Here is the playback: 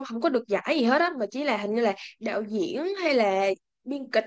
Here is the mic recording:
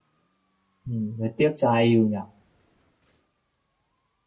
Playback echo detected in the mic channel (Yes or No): No